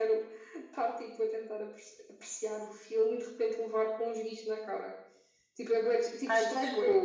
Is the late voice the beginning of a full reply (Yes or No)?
Yes